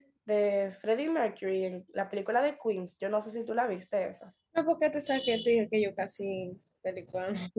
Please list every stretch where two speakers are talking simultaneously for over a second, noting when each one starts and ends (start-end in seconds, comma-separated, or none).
none